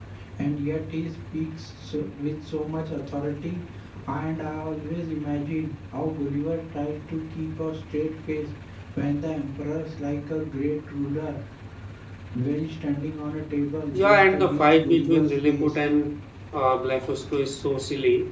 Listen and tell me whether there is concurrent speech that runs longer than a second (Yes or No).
Yes